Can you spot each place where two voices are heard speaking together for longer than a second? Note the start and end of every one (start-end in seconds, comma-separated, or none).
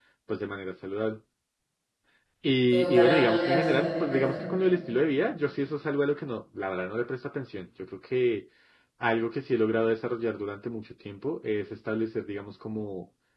2.7-4.4